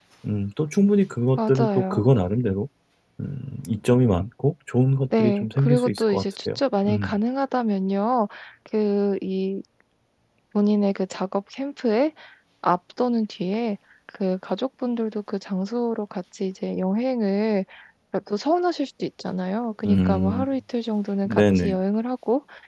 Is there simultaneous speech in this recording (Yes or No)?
Yes